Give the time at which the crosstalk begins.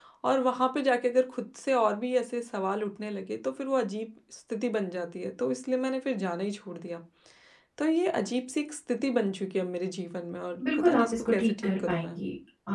10.6 s

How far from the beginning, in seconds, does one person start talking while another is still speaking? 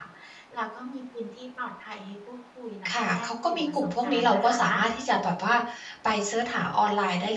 2.8 s

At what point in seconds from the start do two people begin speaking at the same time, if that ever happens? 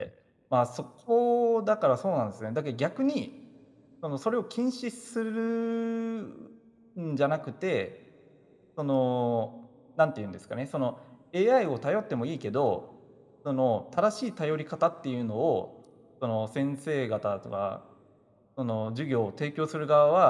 none

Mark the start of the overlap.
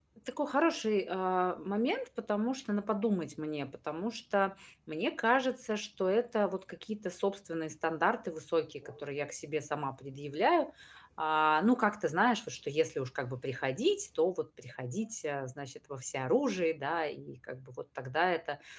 none

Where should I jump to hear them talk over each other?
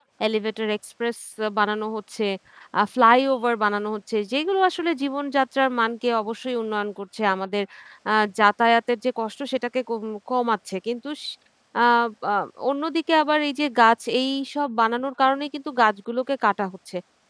none

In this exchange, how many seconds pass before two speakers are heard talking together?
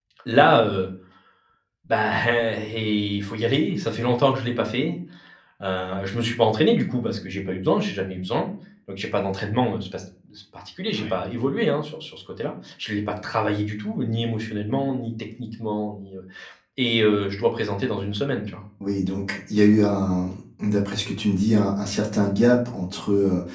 none

